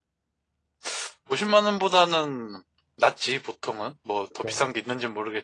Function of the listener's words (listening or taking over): listening